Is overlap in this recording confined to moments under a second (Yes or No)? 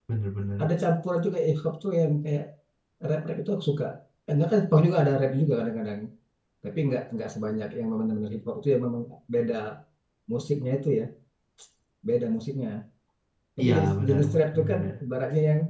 No